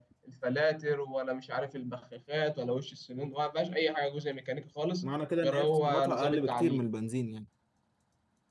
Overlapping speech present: Yes, from 5.4 s

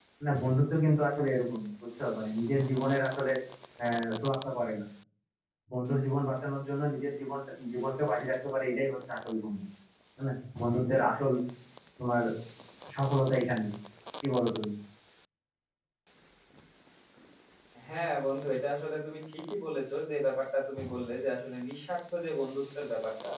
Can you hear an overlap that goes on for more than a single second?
No

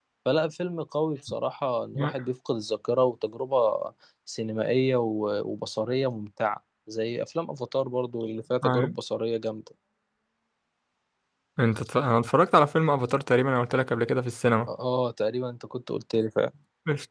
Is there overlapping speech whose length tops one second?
No

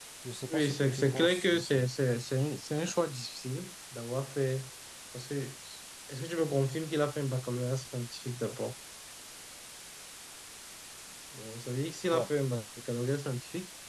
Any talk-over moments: Yes, from 0.5 s

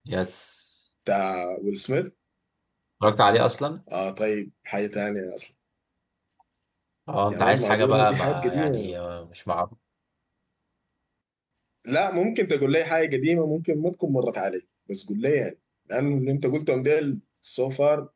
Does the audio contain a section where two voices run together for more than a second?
Yes, from 7.3 s

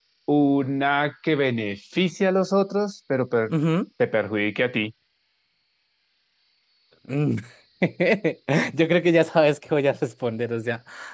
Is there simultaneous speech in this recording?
No

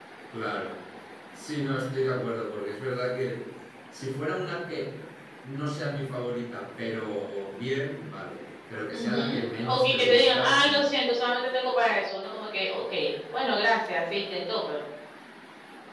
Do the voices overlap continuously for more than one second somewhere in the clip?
Yes, from 8.9 s

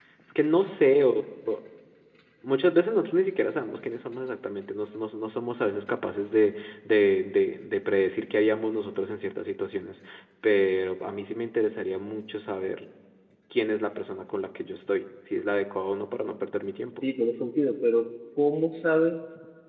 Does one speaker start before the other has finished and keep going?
No

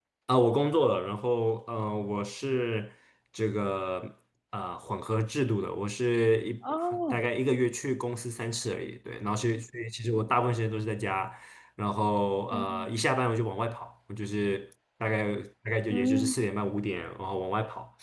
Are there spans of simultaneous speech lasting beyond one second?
No

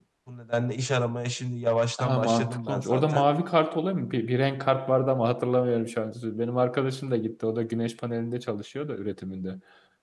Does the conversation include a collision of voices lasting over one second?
Yes, from 2.0 s

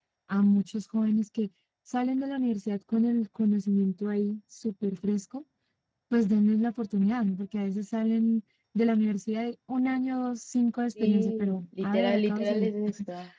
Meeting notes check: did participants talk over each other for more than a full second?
Yes, from 11.0 s

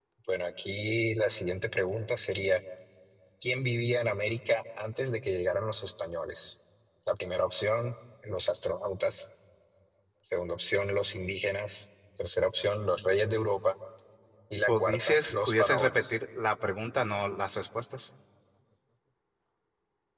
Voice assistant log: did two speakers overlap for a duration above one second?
Yes, from 14.7 s

